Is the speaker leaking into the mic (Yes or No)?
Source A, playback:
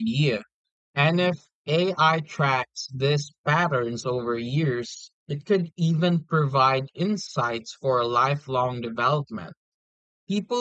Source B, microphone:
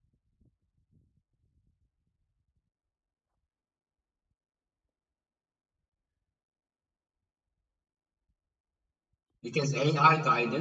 No